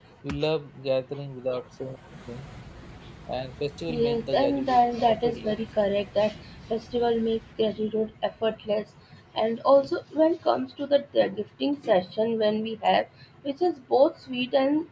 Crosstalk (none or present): present